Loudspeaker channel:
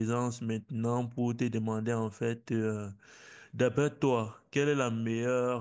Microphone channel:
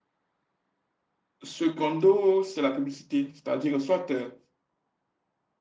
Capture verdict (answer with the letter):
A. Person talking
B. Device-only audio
A